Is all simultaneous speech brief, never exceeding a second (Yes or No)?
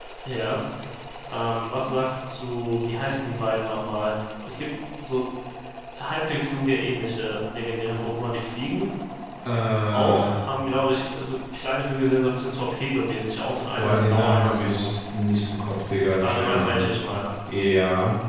No